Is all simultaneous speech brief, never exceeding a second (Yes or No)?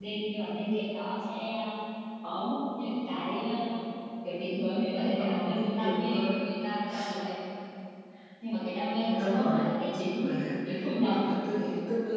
No